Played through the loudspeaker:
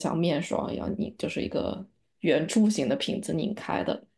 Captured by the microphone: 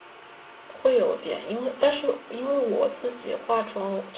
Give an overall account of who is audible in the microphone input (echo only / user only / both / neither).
user only